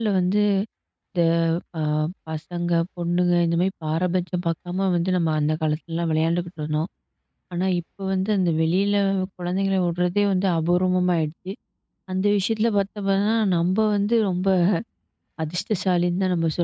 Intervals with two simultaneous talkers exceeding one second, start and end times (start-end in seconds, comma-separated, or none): none